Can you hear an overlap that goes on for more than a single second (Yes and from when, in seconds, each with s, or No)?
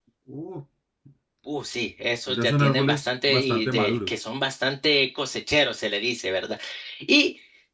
Yes, from 2.3 s